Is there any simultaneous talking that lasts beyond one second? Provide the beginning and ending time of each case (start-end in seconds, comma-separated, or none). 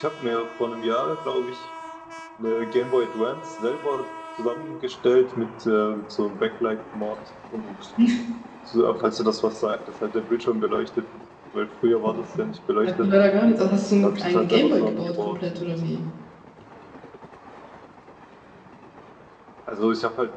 14.0-15.7